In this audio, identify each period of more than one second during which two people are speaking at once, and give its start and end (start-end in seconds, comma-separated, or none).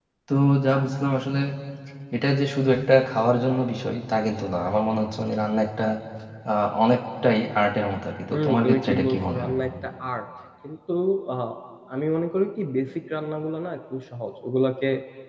8.3-9.5